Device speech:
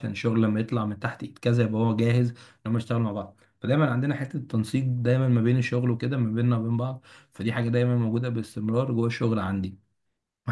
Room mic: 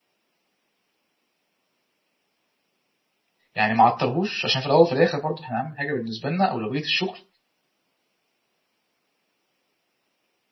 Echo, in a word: none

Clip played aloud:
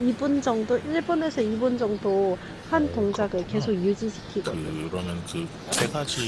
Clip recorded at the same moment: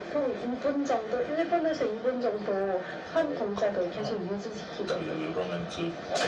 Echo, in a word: present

